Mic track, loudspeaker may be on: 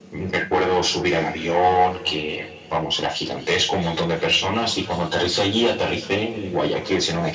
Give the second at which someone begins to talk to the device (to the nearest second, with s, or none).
none